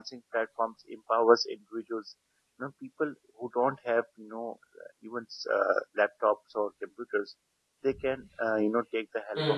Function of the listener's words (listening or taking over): listening